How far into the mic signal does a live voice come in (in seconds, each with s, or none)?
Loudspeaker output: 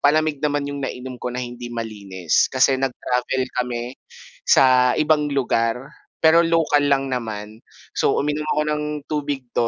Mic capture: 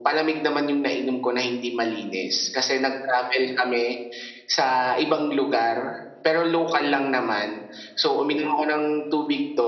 none